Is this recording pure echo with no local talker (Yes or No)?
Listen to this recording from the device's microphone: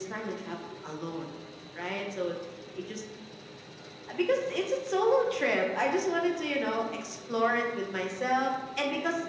Yes